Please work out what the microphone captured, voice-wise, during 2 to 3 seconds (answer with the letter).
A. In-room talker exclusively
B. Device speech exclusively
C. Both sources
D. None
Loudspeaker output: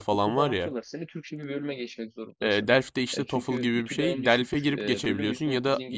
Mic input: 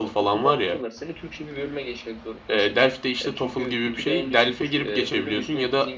B